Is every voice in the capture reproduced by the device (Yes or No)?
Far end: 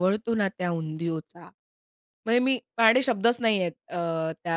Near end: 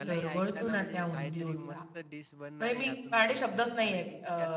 No